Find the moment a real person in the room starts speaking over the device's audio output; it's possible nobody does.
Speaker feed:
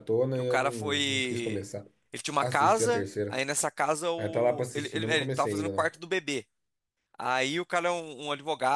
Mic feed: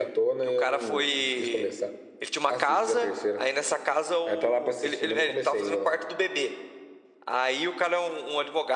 none

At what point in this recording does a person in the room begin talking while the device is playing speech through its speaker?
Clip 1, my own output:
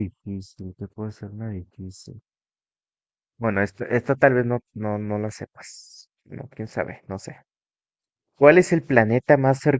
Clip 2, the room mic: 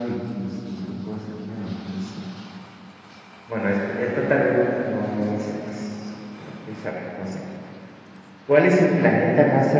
none

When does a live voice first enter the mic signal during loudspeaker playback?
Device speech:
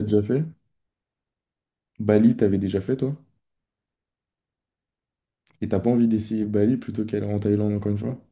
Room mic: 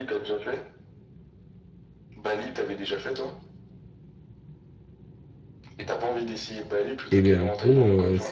7.1 s

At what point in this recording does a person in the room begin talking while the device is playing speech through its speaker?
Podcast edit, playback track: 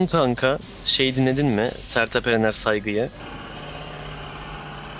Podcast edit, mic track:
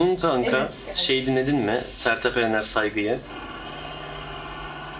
0.4 s

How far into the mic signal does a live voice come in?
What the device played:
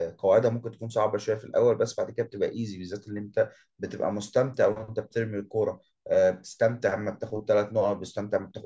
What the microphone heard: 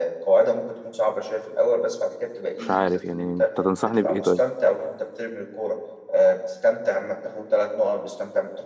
2.6 s

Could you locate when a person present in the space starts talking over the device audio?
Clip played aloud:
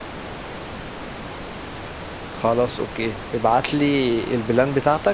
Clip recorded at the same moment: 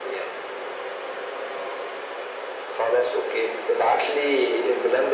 none

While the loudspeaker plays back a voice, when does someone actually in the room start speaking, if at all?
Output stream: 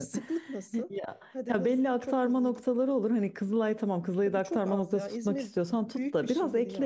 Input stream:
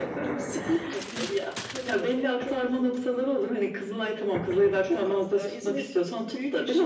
none

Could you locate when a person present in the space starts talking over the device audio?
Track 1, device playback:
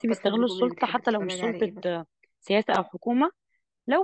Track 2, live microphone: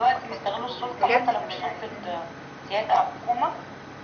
1.0 s

